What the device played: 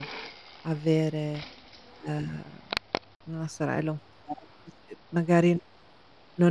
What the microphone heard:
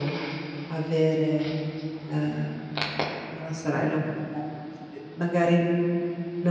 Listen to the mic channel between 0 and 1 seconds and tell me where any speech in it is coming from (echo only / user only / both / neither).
echo only